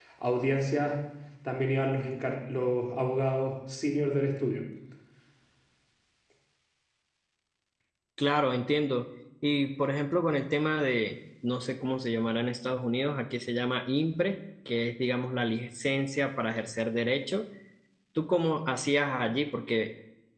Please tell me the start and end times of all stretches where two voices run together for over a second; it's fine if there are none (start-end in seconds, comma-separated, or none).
none